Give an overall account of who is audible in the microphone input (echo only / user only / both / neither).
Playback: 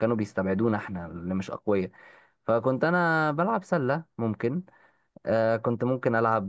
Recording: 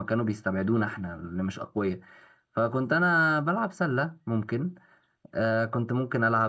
echo only